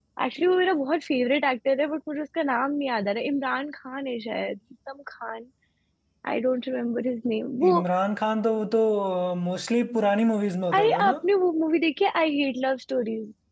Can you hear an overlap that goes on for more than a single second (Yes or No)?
No